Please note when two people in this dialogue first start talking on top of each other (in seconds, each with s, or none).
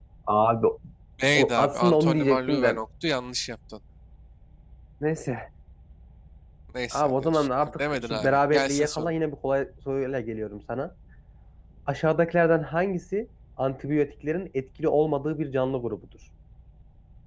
1.3 s